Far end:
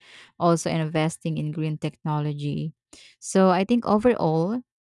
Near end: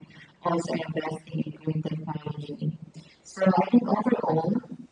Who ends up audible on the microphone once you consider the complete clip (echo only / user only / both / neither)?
echo only